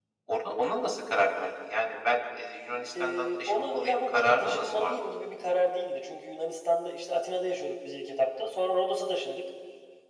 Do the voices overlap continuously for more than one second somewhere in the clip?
Yes, from 2.9 s

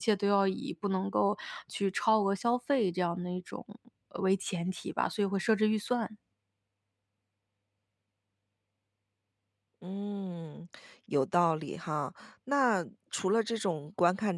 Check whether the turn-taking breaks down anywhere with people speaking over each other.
No

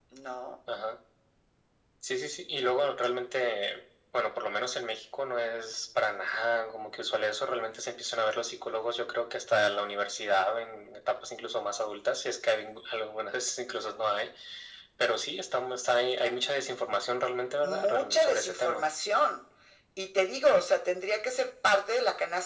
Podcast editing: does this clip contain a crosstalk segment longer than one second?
Yes, from 17.6 s

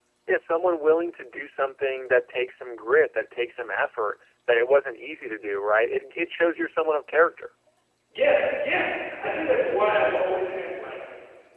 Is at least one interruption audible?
No

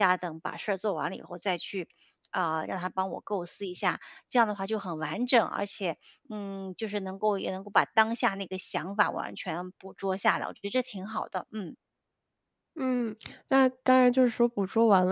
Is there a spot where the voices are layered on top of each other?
No

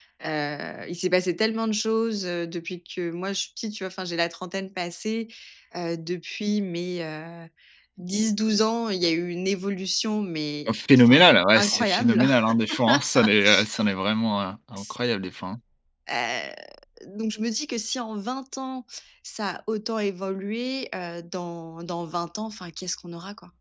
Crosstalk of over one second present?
Yes, from 10.7 s

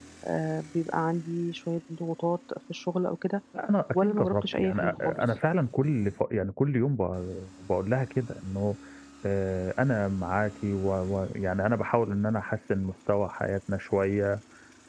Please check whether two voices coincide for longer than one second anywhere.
Yes, from 3.9 s

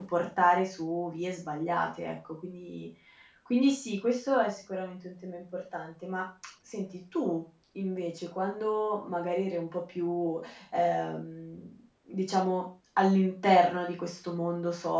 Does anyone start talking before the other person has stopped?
No

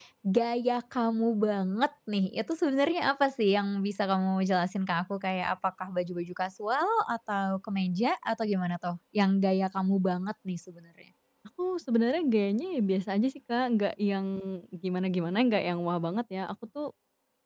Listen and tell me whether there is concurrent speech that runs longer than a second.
No

